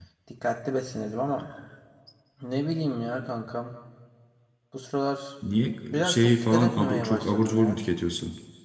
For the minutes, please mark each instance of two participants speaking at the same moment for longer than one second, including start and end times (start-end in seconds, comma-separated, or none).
5.9-7.8